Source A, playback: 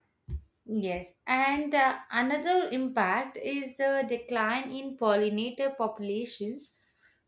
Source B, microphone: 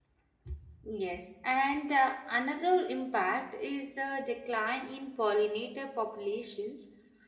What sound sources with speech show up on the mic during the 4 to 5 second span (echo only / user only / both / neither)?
echo only